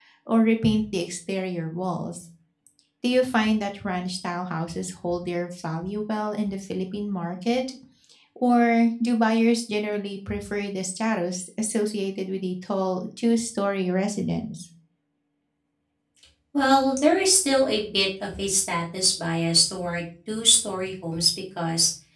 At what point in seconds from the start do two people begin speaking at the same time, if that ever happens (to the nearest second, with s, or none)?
none